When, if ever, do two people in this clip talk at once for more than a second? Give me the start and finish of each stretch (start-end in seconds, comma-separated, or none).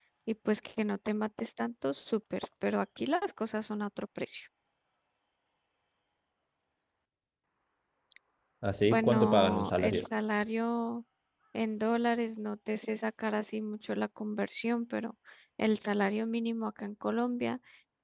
8.8-10.0